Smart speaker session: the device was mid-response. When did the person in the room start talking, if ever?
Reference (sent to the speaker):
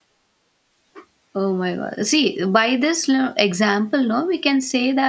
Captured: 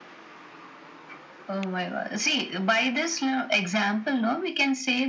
none

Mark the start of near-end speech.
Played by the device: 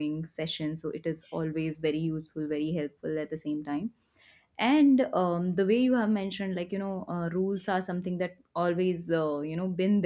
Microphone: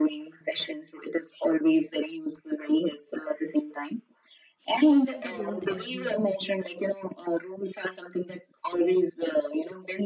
5 s

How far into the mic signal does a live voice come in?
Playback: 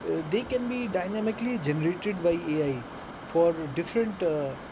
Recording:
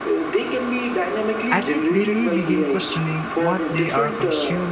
2 s

